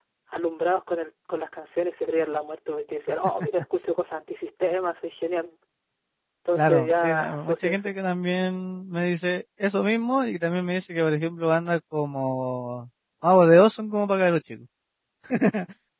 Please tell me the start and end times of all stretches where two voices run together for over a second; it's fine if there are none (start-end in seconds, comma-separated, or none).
6.5-8.0